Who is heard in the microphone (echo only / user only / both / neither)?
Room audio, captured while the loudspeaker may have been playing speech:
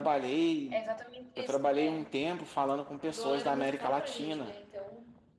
both